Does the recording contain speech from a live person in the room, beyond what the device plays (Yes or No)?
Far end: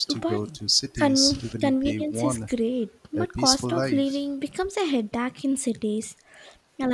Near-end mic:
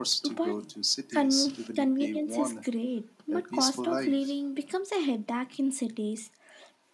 No